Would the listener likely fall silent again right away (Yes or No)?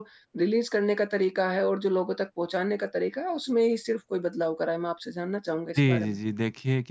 No